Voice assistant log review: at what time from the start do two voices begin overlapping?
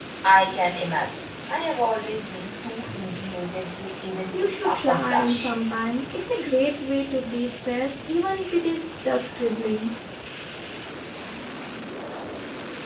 4 s

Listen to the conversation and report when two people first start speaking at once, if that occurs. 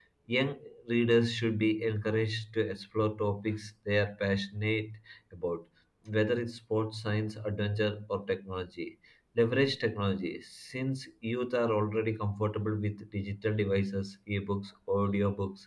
none

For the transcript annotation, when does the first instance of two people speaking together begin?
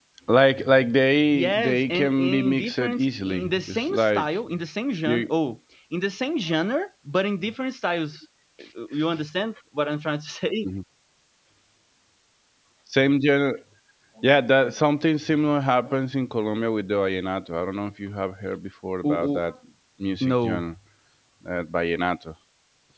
1 s

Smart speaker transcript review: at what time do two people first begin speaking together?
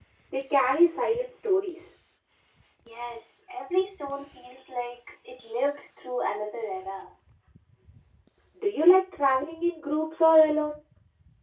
none

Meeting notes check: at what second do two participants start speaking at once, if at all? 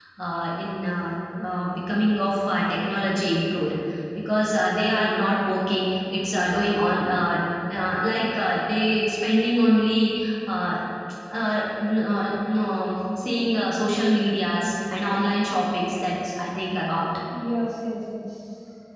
none

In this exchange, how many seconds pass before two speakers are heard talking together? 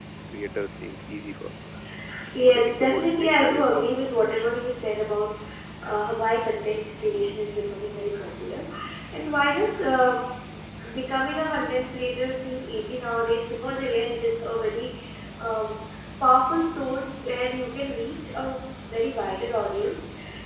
2 s

